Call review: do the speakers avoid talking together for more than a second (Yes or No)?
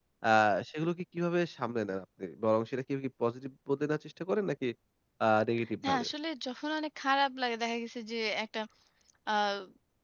Yes